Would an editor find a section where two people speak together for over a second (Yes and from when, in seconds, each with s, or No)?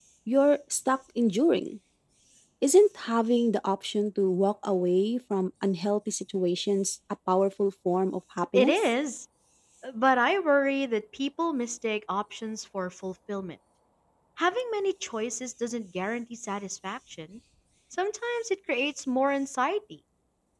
No